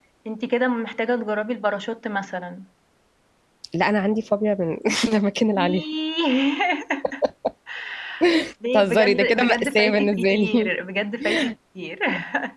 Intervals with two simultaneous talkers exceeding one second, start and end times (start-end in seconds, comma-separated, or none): 8.7-10.7